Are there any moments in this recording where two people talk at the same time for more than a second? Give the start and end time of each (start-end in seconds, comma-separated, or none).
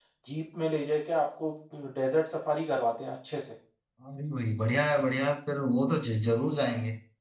none